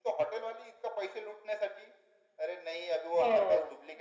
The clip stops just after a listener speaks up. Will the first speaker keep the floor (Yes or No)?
Yes